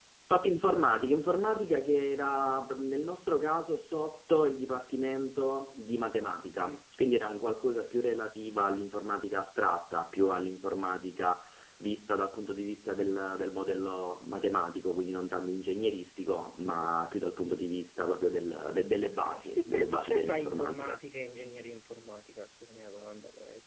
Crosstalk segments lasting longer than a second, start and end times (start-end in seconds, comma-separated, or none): 19.0-21.0